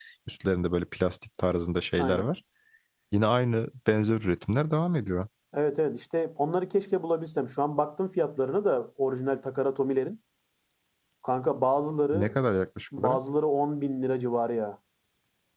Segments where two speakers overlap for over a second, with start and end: none

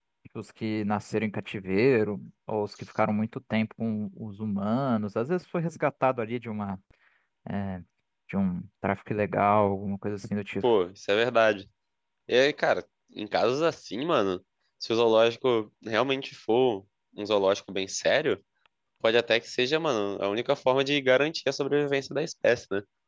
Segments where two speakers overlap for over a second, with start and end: none

